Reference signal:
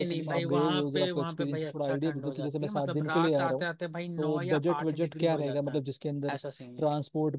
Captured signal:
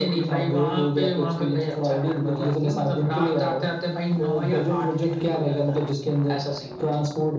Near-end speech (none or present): none